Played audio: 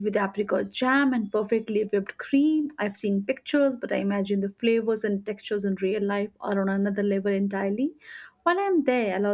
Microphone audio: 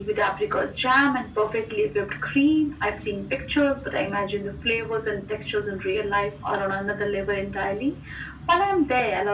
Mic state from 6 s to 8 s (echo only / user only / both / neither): echo only